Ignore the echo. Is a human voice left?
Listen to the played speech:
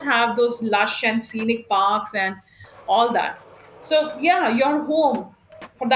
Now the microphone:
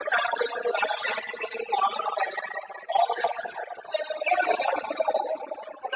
No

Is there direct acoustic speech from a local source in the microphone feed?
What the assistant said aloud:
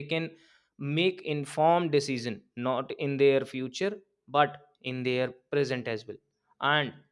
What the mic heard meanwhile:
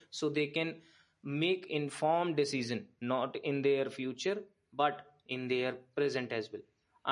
No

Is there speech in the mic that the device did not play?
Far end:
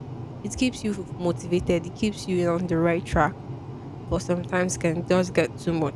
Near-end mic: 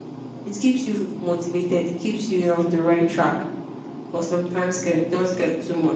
No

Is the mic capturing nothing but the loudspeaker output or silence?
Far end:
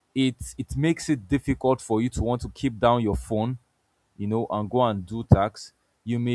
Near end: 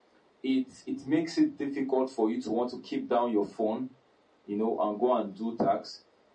Yes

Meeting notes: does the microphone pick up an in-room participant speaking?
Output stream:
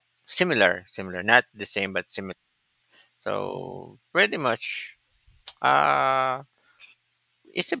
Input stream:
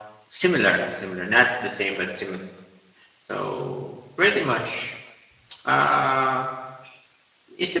No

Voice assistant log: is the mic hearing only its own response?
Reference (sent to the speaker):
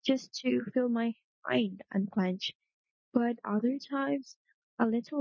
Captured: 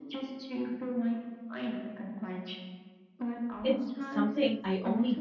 No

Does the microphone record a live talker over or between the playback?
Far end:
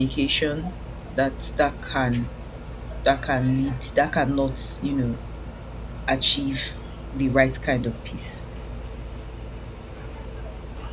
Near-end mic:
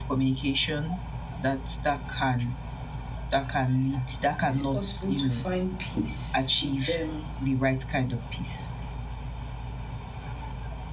Yes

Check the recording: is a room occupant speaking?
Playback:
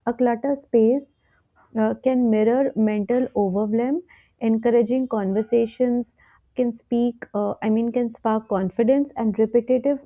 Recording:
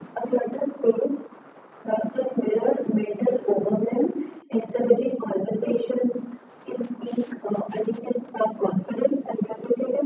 No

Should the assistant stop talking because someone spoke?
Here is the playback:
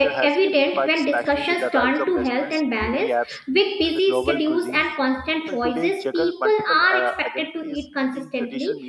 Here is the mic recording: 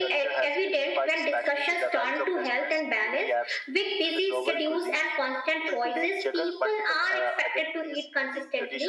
No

